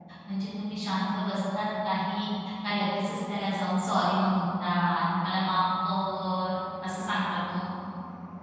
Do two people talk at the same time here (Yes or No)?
No